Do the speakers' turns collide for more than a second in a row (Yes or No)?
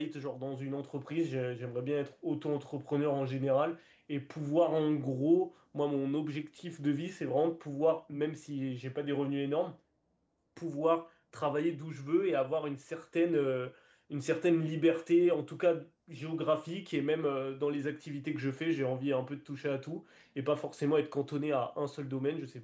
No